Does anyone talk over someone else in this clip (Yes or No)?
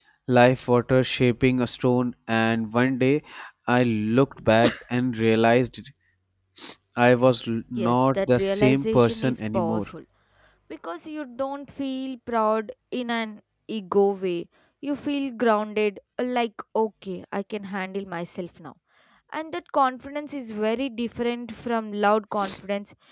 Yes